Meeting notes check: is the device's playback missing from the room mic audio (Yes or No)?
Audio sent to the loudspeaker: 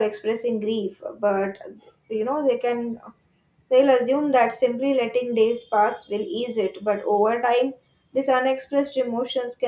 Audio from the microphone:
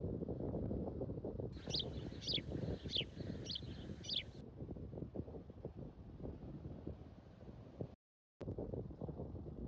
Yes